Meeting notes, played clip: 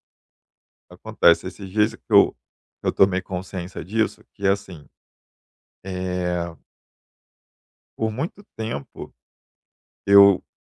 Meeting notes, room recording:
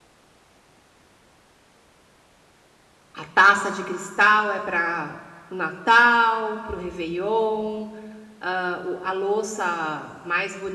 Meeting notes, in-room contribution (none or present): present